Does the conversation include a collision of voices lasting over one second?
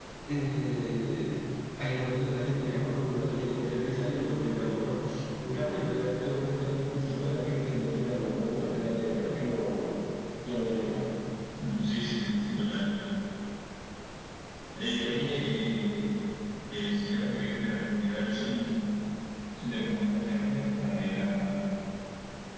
No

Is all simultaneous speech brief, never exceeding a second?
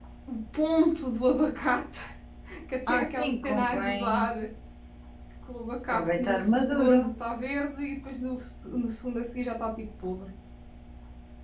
No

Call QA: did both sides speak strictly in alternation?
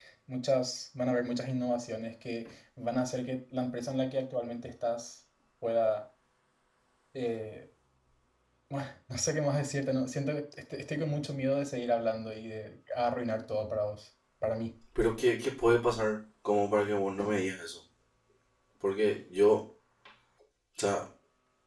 Yes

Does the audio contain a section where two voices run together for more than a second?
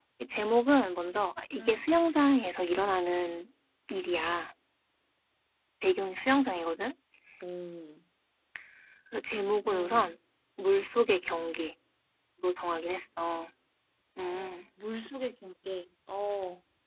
No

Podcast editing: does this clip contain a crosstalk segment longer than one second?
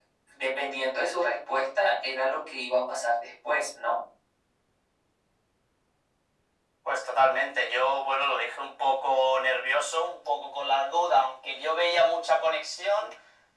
No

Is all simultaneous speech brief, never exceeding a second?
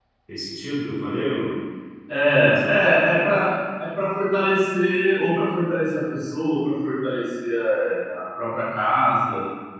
Yes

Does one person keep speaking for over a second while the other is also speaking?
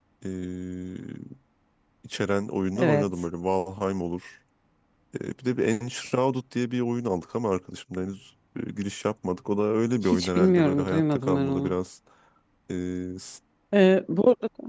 Yes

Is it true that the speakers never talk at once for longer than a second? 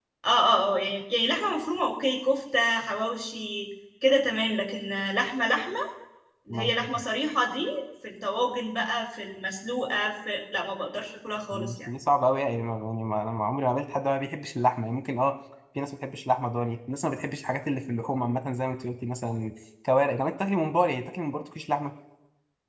Yes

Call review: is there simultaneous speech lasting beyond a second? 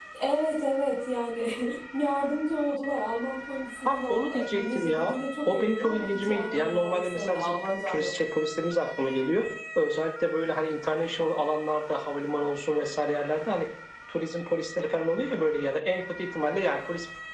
Yes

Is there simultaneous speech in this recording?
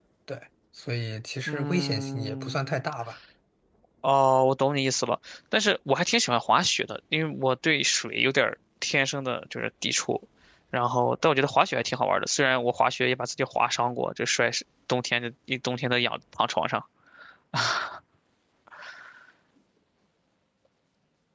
Yes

